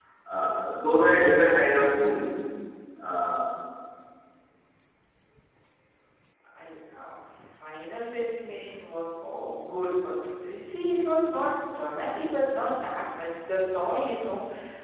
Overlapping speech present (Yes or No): No